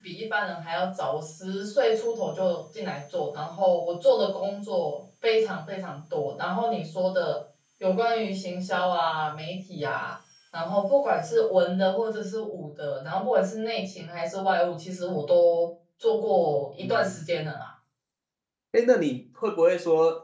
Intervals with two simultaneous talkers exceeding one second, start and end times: none

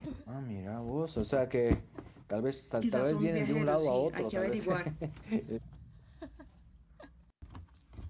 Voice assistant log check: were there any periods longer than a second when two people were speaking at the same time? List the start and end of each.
2.8-4.9

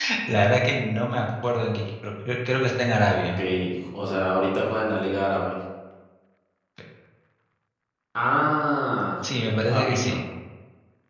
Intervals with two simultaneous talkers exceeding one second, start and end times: none

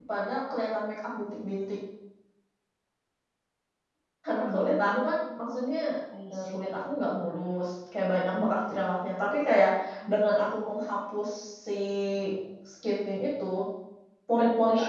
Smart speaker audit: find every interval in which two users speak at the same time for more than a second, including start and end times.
4.4-5.7

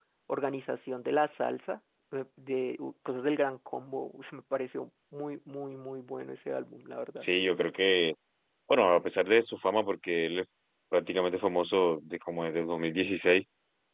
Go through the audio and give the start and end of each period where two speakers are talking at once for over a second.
none

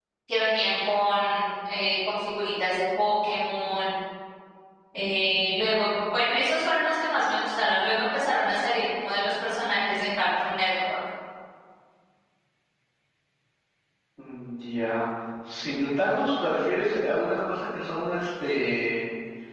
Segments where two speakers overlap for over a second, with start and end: none

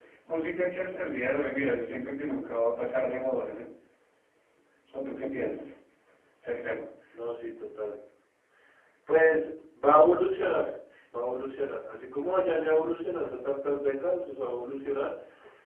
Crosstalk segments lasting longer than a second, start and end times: none

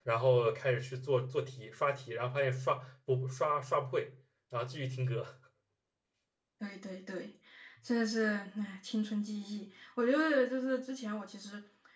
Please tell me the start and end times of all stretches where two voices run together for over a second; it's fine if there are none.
none

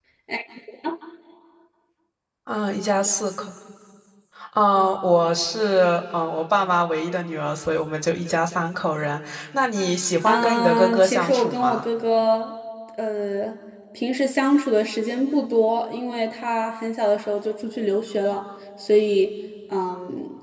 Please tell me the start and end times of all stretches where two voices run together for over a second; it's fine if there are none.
10.2-11.8

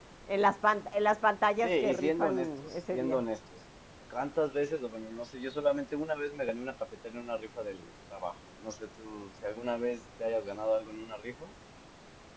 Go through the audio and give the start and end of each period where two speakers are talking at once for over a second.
1.6-3.2

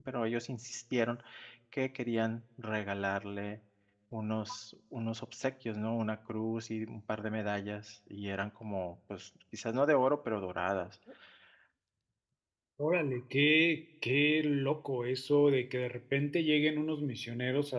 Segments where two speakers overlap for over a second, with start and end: none

